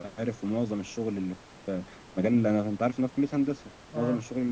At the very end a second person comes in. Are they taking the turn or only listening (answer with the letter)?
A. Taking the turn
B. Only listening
B